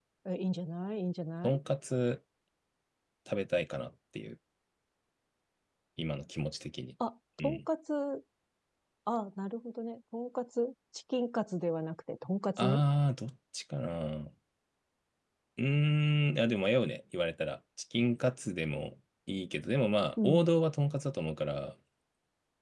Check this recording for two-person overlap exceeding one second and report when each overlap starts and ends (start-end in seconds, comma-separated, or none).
none